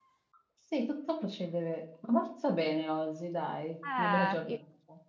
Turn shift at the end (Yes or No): Yes